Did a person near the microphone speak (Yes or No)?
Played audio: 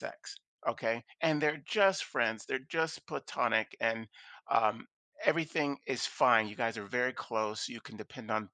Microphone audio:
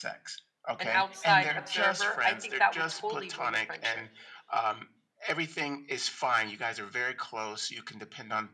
Yes